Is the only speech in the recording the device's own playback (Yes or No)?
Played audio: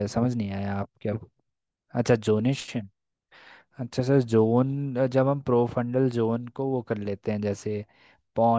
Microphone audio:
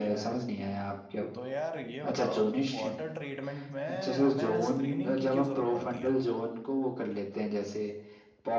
No